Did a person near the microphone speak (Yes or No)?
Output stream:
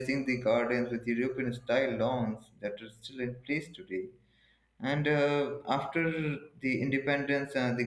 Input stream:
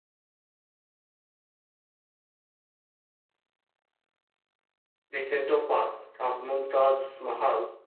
Yes